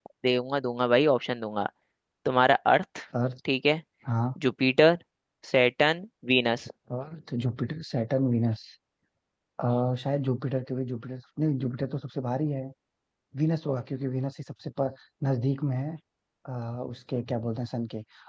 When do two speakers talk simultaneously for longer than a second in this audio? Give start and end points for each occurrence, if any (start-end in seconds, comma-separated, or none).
none